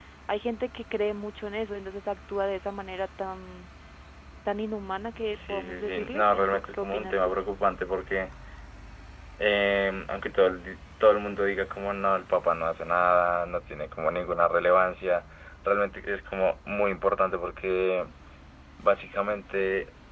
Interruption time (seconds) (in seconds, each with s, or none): 5.3 s